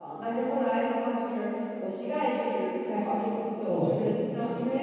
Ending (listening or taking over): listening